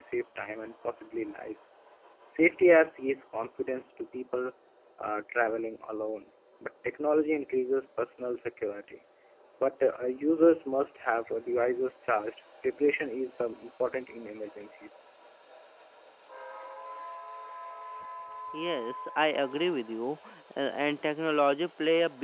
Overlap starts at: none

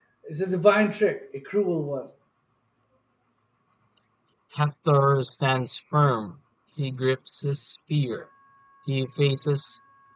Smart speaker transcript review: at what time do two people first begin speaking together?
none

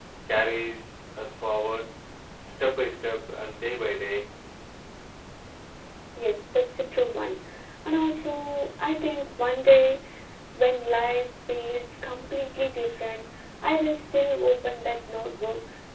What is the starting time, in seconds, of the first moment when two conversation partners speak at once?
none

